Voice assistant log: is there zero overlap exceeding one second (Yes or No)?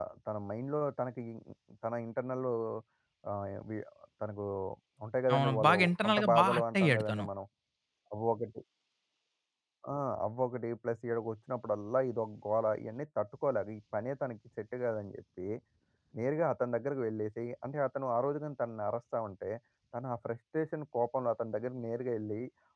No